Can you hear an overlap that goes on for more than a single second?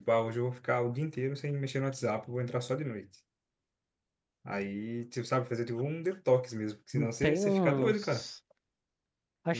Yes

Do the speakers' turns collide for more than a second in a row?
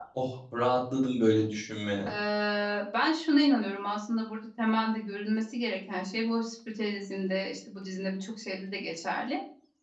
No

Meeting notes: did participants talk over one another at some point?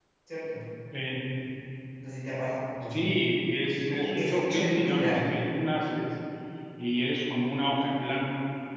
Yes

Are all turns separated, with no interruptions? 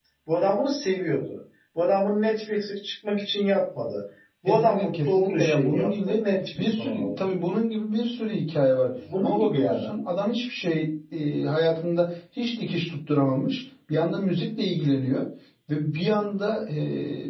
No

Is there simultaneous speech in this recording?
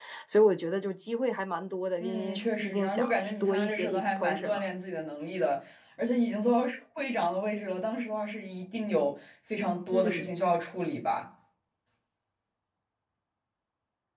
Yes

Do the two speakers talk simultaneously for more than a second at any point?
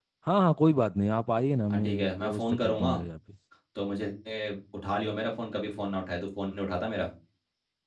Yes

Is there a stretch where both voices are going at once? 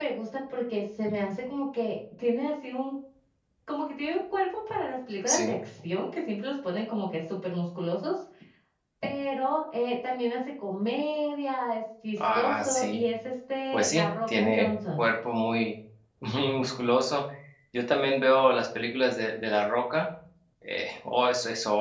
Yes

